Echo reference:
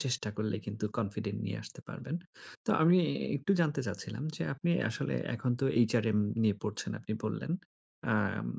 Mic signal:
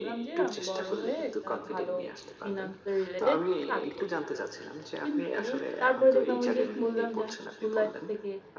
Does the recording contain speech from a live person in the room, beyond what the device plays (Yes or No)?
Yes